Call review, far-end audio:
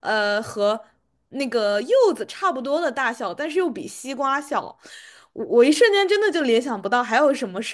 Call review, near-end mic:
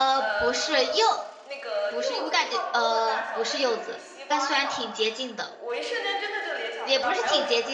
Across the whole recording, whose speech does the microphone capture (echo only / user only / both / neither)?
both